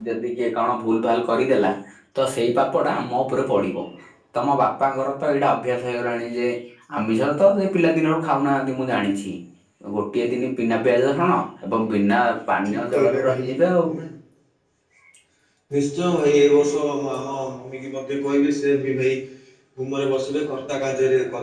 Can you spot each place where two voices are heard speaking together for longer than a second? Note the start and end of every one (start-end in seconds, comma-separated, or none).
12.7-13.9